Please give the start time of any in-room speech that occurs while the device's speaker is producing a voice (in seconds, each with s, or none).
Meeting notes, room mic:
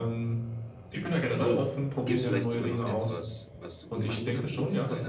1.4 s